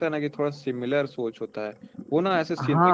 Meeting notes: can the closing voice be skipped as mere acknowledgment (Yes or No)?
Yes